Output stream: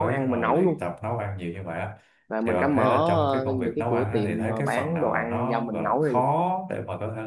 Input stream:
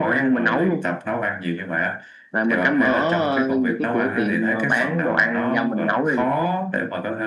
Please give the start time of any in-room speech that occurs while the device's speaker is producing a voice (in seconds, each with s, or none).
none